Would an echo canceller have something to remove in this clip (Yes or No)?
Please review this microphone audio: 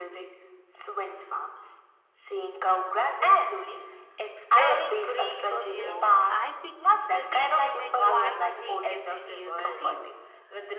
Yes